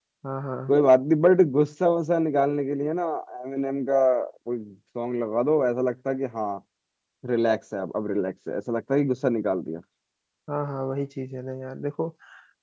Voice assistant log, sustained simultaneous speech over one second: none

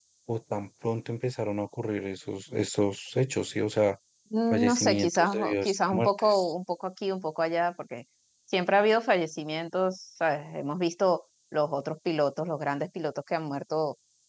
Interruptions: present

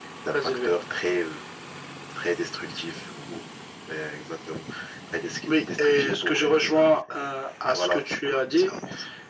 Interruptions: present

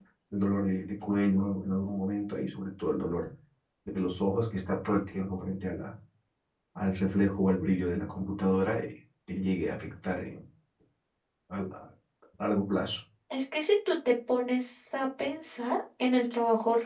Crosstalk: none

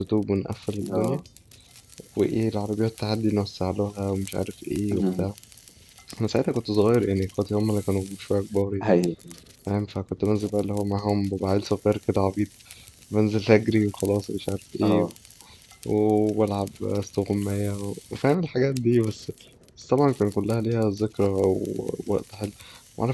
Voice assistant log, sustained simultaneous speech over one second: none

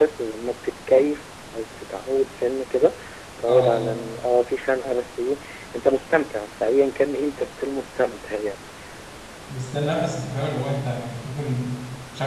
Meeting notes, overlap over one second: none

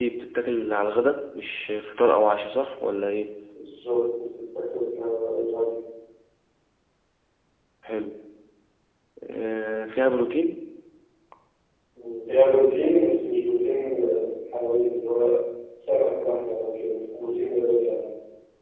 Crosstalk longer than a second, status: none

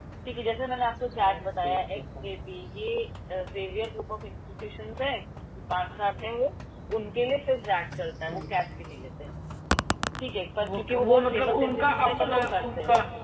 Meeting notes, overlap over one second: present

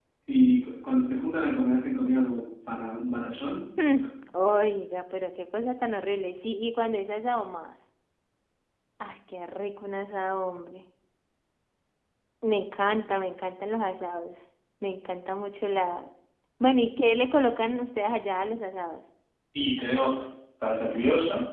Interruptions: none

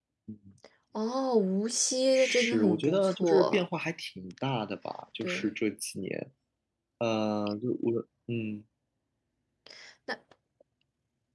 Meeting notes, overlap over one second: present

